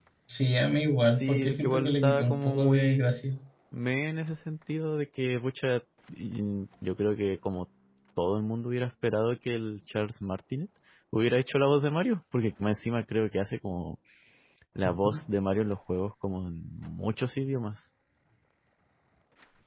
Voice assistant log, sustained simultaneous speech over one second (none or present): present